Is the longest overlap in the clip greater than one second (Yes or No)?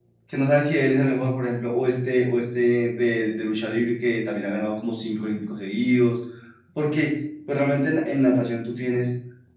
No